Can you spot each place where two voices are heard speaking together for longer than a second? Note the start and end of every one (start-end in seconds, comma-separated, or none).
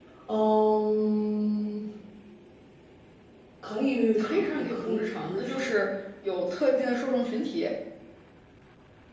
4.2-5.6